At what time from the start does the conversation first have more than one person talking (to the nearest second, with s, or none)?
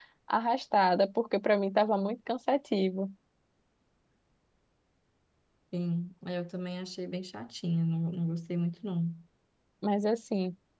none